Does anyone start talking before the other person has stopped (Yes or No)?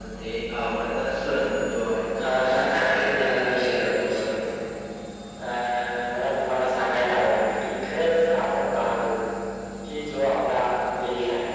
Yes